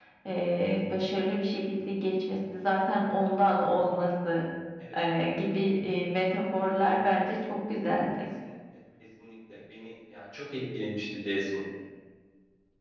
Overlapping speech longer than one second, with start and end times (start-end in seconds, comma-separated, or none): none